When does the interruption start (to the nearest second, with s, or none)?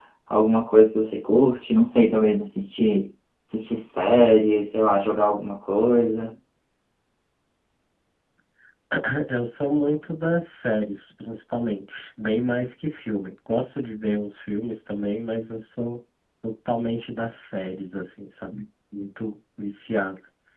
none